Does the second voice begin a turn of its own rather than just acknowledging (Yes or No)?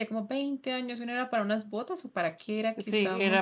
Yes